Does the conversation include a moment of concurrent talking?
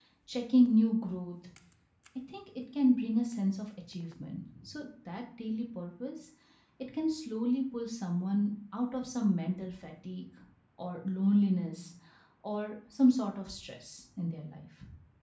No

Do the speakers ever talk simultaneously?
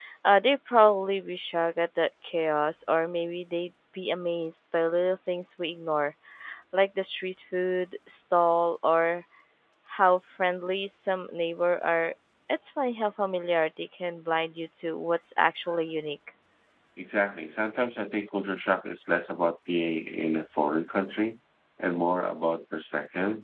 No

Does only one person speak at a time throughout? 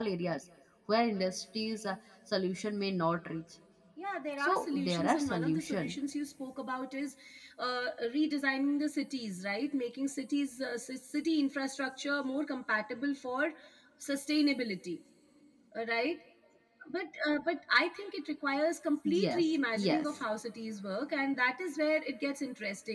No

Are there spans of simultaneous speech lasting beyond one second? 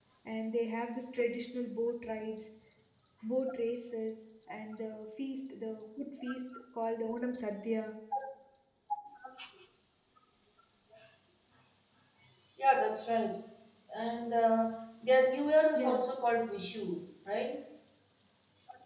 No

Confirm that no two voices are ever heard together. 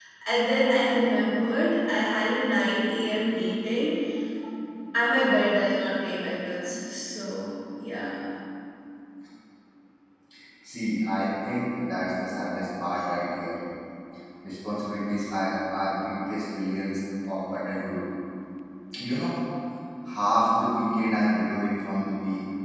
Yes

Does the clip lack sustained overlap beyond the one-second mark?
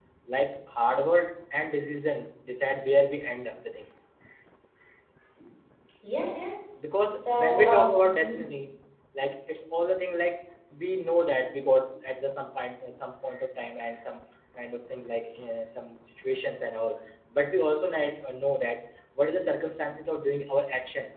No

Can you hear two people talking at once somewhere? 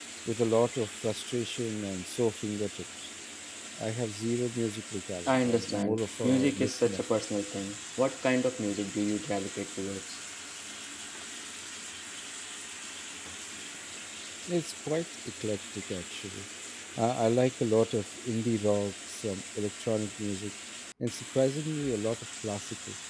Yes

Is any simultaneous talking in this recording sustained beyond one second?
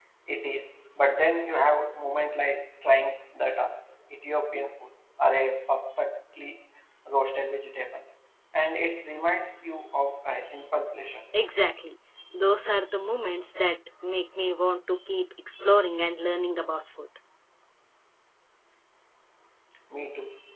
No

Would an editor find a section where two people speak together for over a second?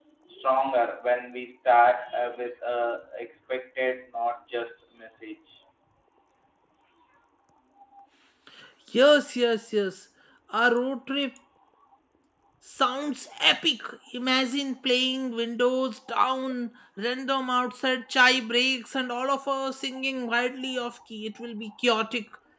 No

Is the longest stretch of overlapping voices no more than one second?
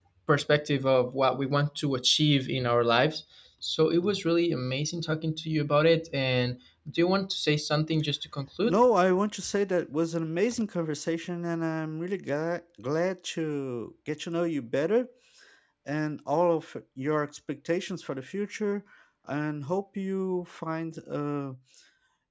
Yes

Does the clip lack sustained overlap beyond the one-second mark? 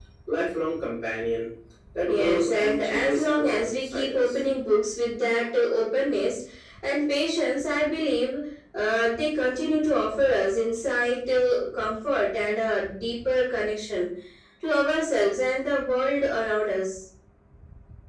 No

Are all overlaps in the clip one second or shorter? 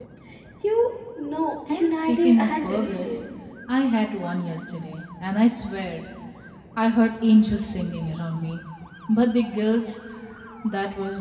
No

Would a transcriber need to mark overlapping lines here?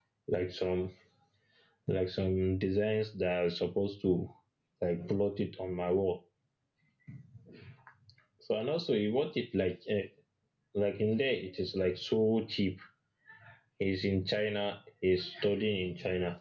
No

